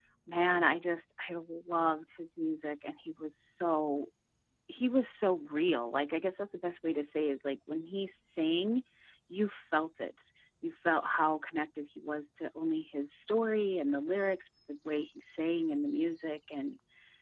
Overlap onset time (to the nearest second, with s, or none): none